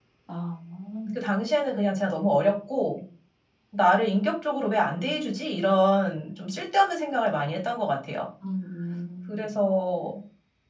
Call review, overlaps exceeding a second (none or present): none